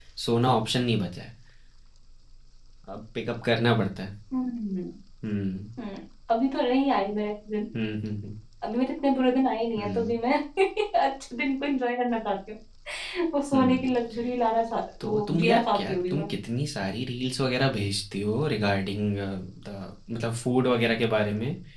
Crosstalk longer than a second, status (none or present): present